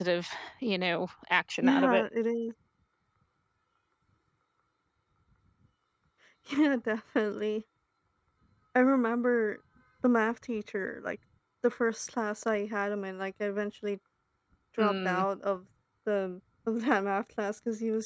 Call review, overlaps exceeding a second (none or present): none